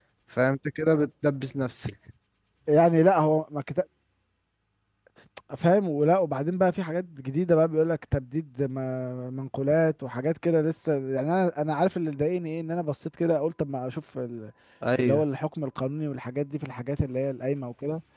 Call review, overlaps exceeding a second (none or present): none